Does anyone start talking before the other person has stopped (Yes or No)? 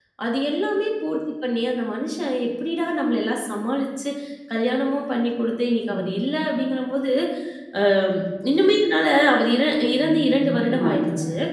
Yes